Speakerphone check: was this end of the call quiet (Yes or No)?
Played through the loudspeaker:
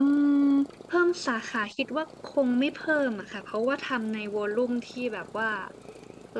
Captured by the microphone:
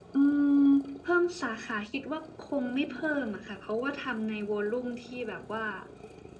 Yes